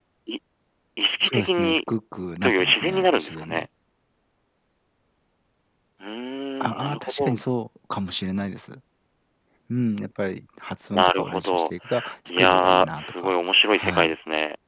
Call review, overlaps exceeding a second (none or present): present